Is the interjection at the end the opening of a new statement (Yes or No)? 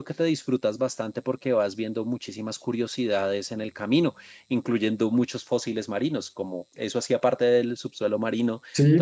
Yes